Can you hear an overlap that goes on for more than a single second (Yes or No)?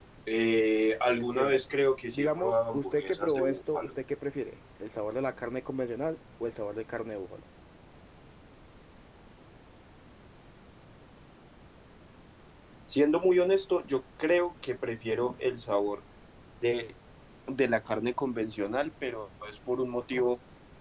Yes